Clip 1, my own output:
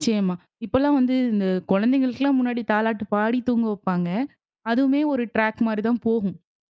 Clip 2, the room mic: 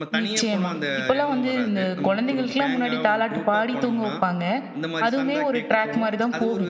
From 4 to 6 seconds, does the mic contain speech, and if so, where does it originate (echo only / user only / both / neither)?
both